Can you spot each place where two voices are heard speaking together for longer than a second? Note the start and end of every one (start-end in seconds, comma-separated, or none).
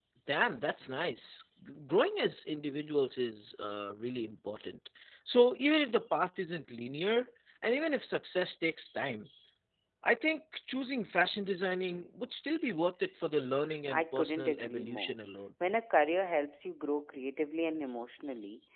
13.9-15.1